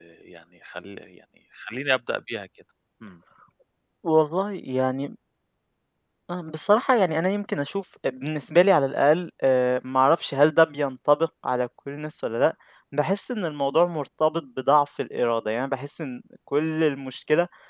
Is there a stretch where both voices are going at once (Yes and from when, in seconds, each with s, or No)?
No